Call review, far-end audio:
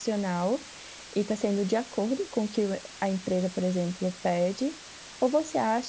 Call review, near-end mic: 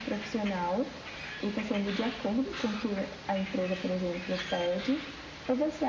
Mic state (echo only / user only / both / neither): echo only